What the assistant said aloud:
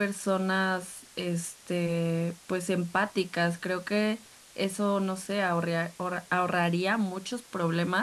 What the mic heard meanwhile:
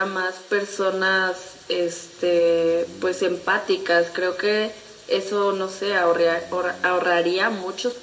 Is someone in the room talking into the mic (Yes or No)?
No